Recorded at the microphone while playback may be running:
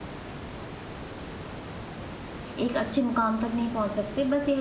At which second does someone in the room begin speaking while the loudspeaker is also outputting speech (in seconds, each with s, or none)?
2.6 s